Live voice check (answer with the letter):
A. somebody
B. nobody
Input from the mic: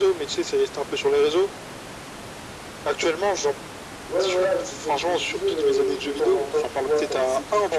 B